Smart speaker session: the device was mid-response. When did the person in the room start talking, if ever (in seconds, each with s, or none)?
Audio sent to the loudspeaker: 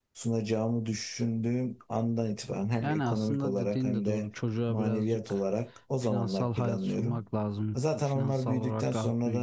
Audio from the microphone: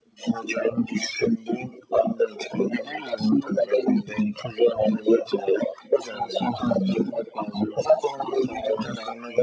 none